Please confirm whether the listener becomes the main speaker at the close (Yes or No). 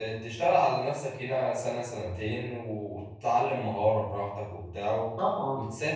No